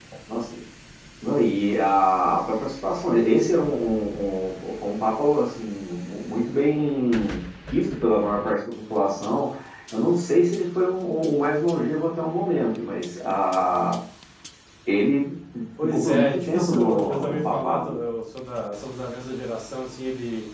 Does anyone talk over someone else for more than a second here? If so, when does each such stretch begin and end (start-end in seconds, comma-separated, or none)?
15.8-18.0